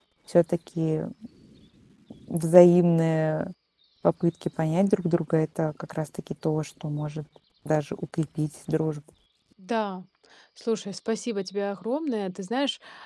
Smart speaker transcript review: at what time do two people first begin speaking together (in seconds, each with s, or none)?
none